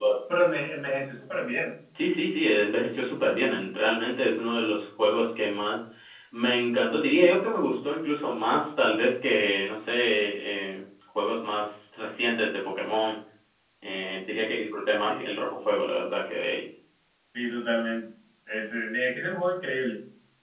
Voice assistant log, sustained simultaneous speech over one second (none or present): none